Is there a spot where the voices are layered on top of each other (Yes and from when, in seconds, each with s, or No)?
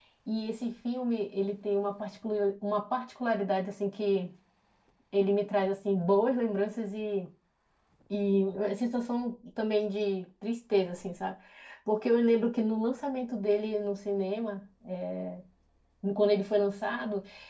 No